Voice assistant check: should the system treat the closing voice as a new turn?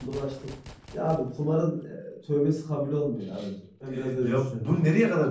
Yes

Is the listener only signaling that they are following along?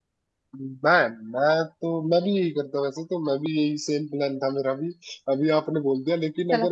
Yes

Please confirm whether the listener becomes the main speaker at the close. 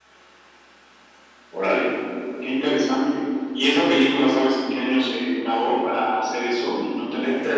Yes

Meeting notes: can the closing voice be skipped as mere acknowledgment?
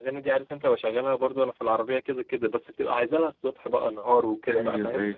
No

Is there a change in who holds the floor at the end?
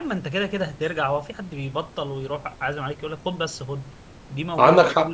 No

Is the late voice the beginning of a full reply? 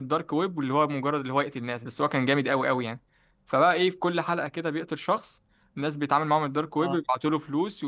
No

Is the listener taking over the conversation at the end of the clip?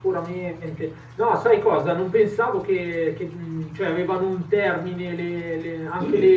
No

